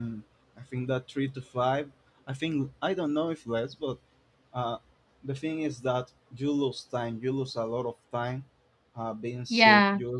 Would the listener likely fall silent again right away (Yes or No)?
Yes